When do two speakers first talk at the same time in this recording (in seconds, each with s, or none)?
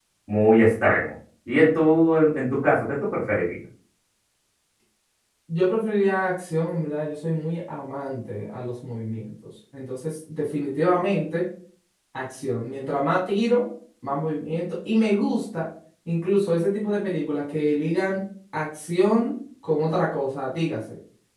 none